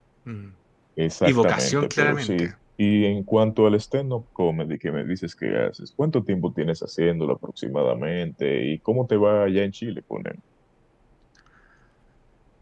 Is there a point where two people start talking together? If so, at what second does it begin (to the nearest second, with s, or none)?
1 s